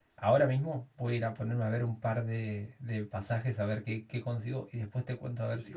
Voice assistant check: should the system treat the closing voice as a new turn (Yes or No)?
Yes